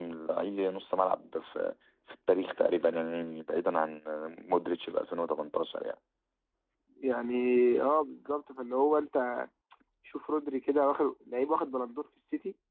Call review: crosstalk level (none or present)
none